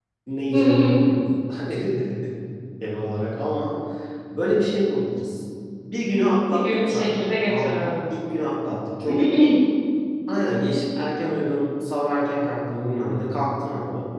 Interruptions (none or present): present